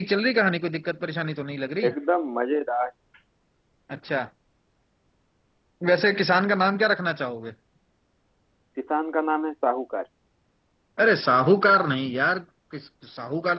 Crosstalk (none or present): none